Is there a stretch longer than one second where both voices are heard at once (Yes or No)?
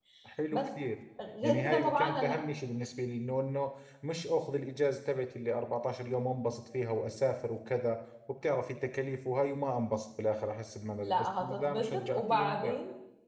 Yes